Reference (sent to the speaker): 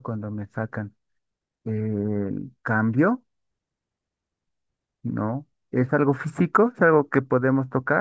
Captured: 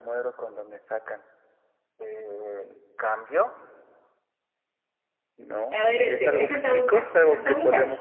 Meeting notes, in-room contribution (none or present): present